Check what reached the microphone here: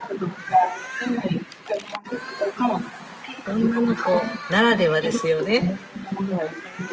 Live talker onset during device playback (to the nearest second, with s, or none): 3 s